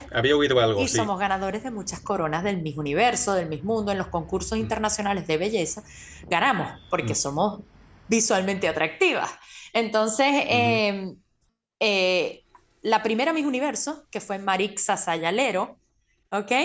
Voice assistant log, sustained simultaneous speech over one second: none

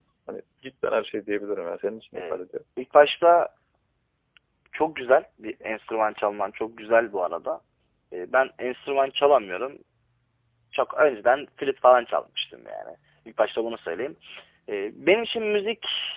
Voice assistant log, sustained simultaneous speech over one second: none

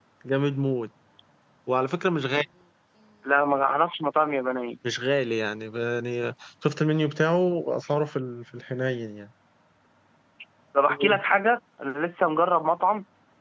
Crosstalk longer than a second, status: none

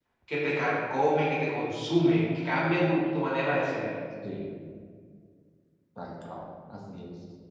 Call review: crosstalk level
none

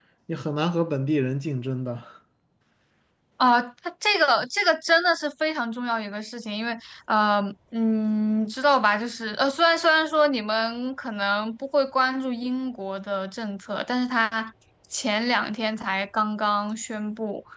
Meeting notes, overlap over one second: none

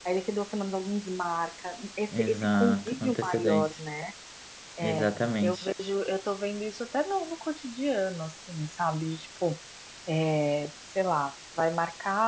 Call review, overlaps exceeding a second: present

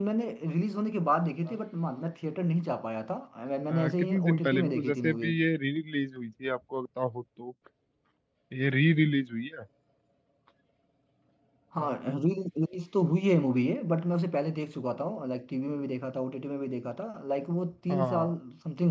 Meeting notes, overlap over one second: present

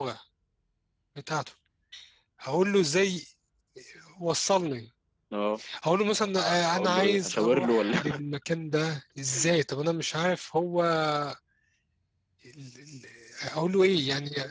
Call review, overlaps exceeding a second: present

